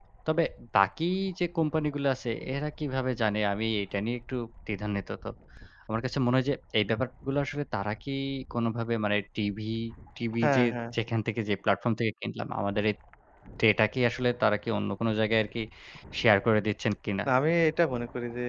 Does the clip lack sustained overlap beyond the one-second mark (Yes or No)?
Yes